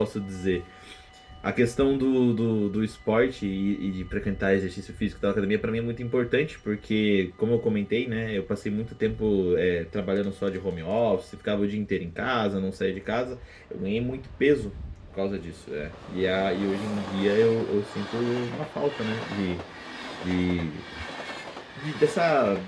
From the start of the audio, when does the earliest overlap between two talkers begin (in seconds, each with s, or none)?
none